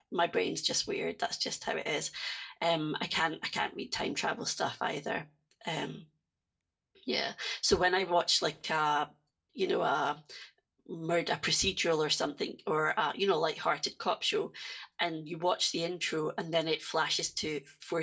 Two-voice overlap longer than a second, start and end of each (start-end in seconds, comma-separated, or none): none